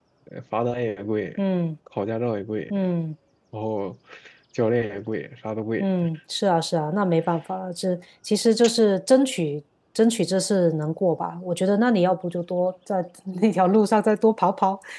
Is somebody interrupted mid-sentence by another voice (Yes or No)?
No